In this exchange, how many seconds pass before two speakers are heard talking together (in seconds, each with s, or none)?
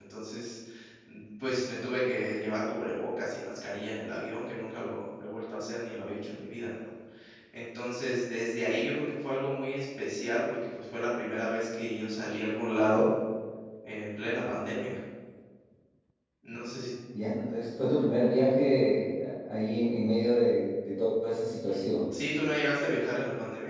none